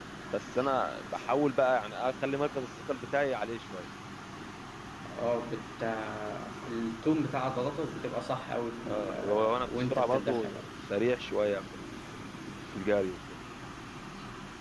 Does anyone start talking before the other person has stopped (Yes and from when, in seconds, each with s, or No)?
Yes, from 8.8 s